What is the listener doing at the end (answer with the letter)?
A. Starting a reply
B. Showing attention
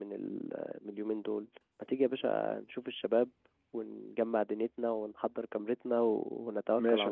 A